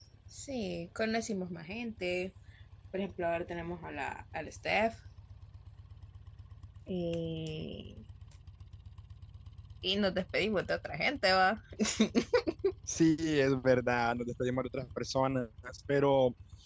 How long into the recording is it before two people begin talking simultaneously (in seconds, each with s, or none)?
none